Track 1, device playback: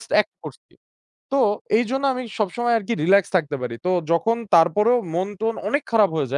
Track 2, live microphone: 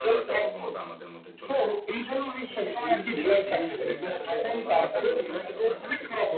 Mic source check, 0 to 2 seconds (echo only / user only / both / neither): both